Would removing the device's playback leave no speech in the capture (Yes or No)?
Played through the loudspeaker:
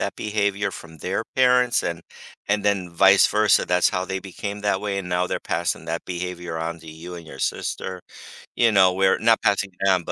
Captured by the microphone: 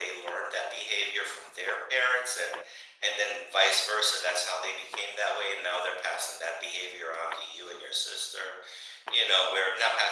Yes